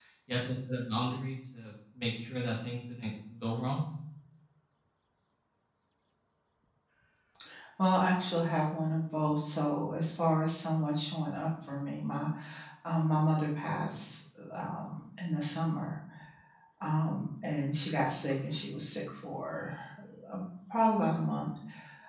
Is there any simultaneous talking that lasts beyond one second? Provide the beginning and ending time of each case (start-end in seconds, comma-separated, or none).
none